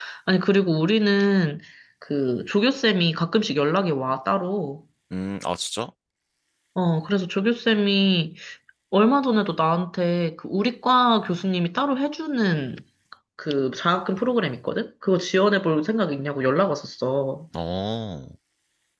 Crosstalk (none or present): none